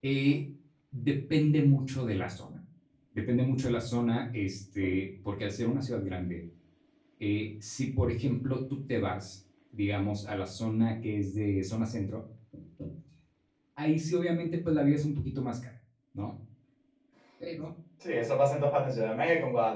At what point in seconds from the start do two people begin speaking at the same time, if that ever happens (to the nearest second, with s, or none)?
none